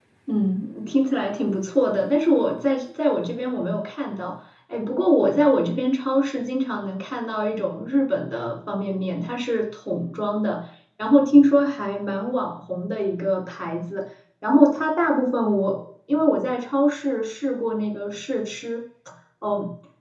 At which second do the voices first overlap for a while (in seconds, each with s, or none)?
none